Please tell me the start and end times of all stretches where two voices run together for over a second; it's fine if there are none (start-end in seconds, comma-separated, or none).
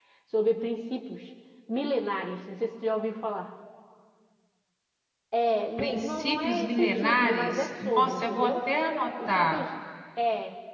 5.8-8.5